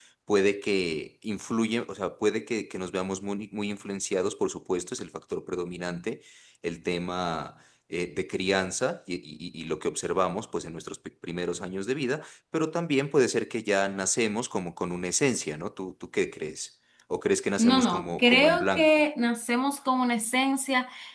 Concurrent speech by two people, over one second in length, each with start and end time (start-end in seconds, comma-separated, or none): 17.6-19.0